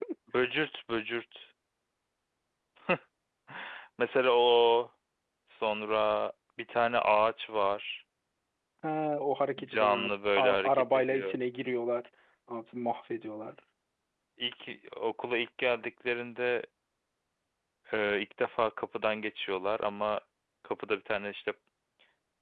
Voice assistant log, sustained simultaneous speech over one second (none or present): present